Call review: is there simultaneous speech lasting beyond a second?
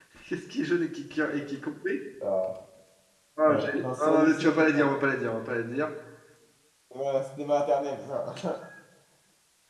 Yes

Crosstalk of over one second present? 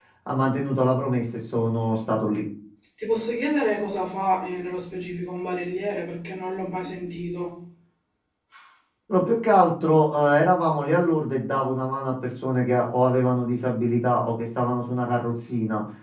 No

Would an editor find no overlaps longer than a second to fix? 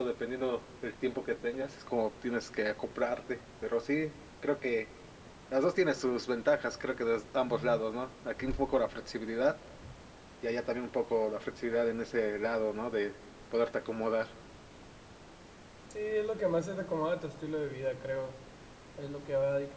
Yes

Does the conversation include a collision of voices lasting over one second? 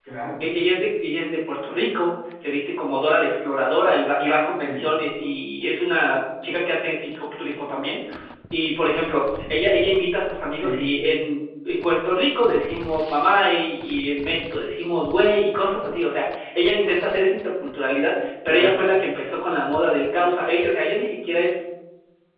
No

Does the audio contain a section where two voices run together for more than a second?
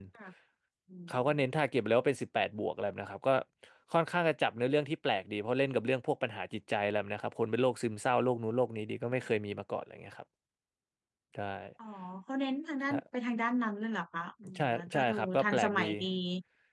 Yes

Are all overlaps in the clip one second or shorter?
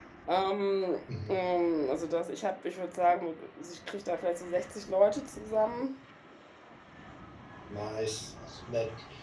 Yes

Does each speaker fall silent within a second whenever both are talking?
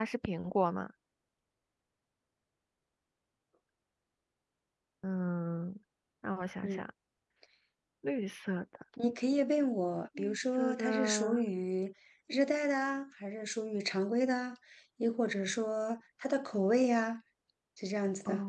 No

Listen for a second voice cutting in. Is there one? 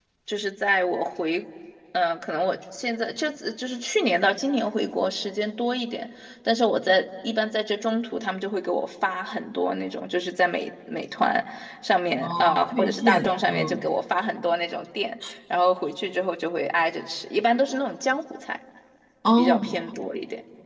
Yes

